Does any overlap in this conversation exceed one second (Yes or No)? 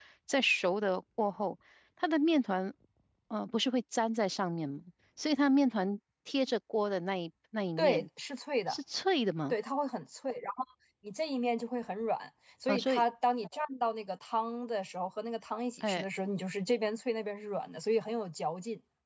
No